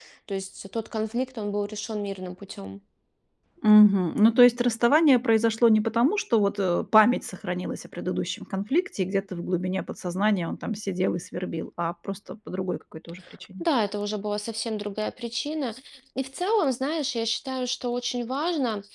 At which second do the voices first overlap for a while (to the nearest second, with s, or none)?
none